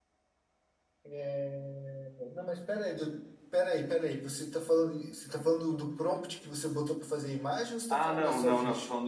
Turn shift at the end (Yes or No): Yes